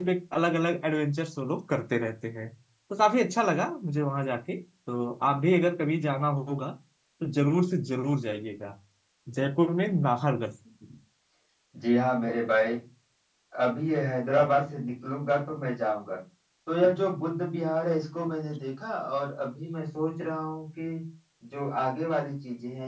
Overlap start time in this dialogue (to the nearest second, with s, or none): none